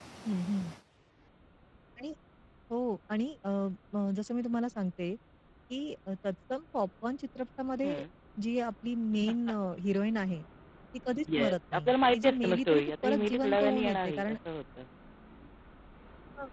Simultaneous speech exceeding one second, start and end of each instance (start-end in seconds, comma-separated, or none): 11.3-14.4